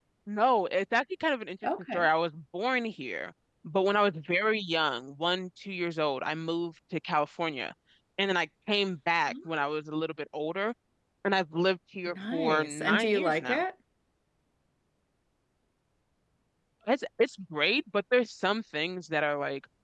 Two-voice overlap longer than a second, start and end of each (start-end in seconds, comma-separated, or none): 12.1-13.6